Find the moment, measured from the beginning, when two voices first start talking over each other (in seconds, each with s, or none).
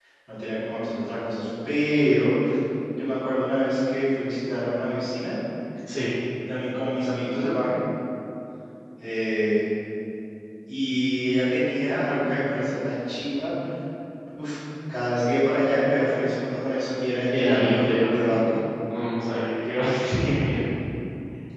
17.3 s